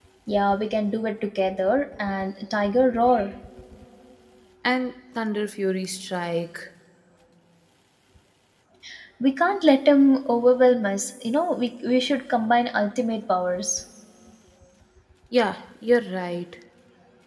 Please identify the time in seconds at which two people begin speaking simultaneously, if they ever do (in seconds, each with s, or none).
none